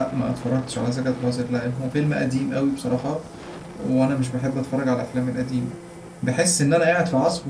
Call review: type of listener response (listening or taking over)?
listening